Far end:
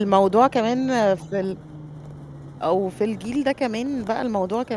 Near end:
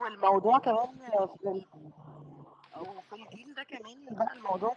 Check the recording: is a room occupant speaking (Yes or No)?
No